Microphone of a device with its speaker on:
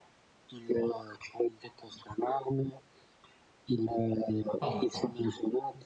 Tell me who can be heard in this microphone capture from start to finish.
both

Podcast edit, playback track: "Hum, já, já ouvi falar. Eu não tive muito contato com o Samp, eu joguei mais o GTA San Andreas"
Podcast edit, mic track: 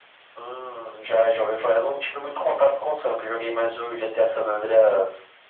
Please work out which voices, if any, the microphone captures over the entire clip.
echo only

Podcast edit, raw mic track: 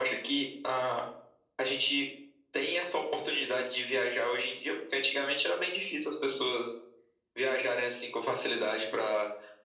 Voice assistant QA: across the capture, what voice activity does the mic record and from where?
echo only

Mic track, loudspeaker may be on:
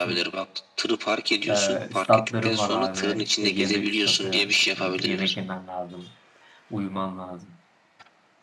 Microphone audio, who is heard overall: both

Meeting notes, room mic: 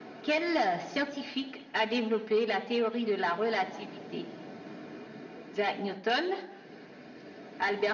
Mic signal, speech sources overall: echo only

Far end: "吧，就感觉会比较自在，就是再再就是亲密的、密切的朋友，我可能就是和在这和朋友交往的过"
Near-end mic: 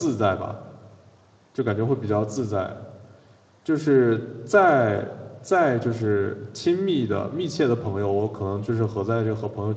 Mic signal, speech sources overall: echo only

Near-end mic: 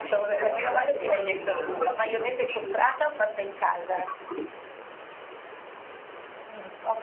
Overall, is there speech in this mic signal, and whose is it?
both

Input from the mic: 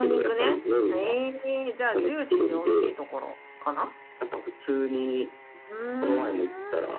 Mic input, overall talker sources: both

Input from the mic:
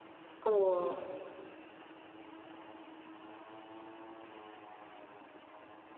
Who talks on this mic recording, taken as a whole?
user only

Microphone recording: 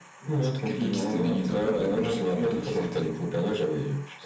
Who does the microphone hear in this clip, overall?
both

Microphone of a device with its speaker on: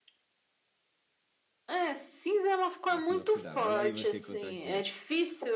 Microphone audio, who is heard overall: both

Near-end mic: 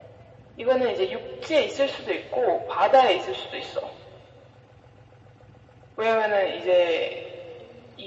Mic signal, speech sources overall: echo only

